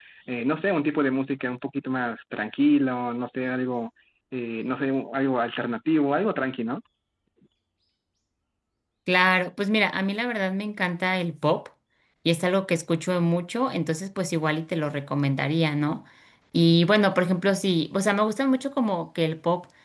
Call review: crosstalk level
none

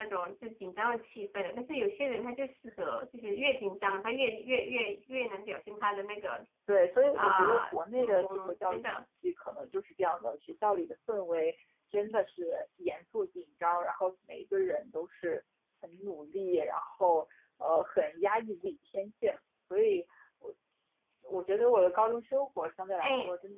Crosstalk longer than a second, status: present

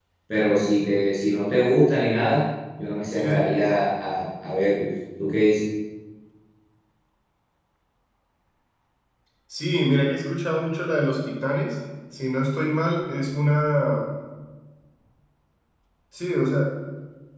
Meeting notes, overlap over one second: none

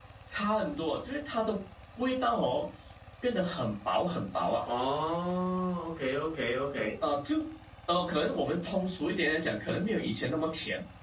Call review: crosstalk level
none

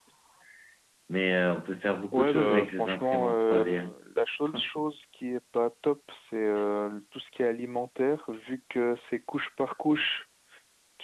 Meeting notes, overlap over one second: present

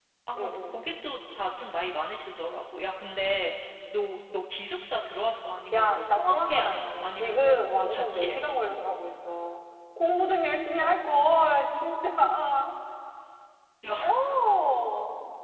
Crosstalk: present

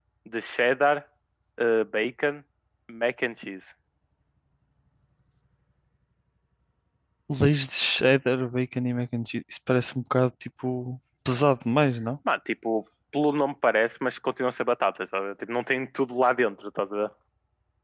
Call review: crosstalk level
none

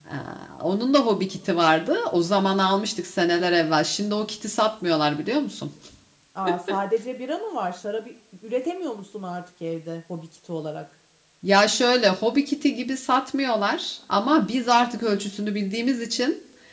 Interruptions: none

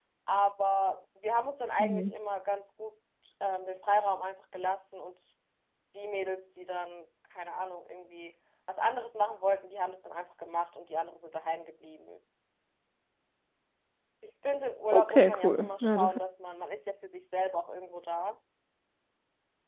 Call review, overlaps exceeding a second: present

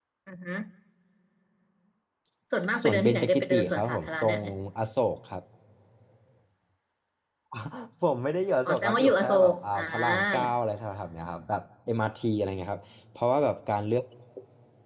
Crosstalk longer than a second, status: present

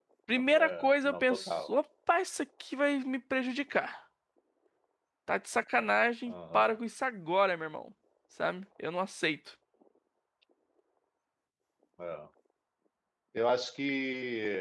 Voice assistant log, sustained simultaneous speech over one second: present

